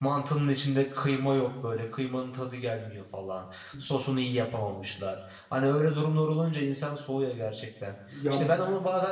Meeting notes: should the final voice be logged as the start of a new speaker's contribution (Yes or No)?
No